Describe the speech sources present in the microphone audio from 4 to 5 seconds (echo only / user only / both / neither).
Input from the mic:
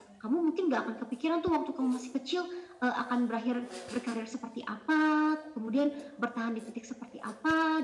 echo only